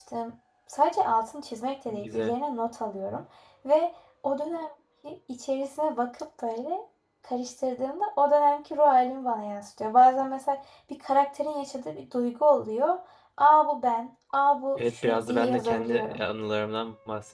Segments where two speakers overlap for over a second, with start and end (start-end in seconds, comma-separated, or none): 14.8-16.2